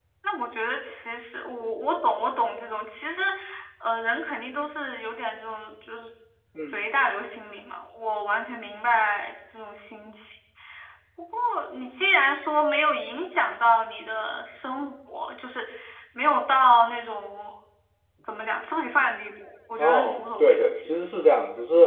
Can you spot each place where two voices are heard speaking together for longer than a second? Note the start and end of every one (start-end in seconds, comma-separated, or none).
19.8-21.0